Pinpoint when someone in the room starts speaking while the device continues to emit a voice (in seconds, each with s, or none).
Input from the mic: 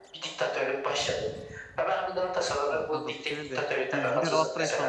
2.7 s